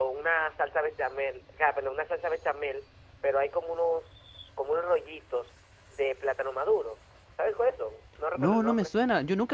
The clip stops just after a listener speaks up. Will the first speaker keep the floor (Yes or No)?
No